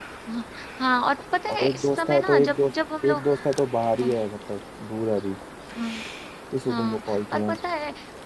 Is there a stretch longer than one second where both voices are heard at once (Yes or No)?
Yes